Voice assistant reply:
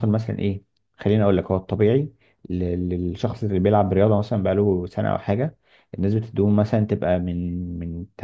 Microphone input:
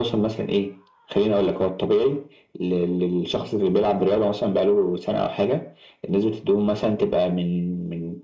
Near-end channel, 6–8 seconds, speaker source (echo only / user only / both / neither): echo only